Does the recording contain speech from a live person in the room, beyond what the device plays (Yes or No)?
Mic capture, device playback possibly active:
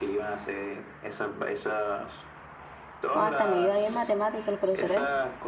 Yes